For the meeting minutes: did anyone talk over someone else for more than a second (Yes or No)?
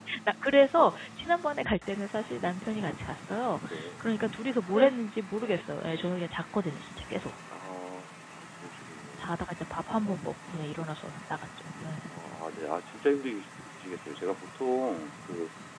No